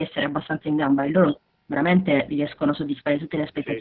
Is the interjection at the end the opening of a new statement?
Yes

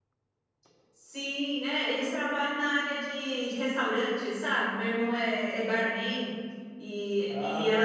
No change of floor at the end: Yes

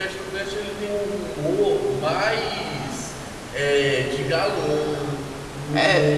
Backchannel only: No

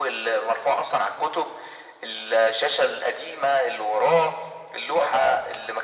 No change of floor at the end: No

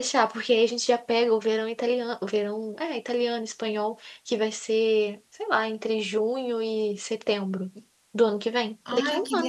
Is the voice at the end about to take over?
Yes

